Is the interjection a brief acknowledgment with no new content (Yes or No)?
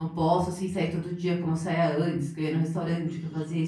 No